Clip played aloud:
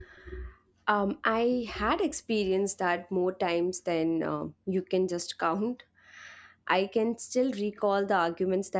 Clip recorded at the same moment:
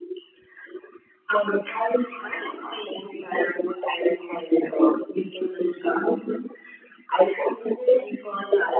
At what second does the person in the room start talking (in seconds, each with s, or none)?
none